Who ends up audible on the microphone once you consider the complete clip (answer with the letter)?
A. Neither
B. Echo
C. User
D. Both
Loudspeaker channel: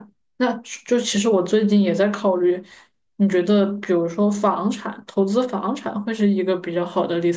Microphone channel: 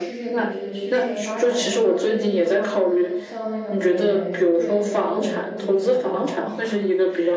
D